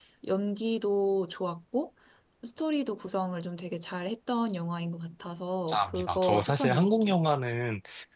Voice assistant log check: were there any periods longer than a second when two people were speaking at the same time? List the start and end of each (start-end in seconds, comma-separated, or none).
5.7-7.1